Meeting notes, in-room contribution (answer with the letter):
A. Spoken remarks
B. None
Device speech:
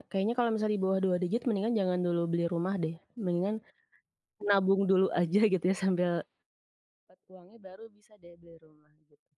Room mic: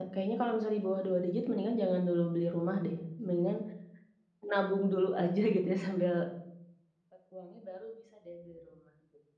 B